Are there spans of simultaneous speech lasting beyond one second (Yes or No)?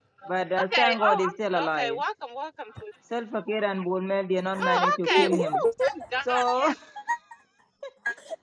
Yes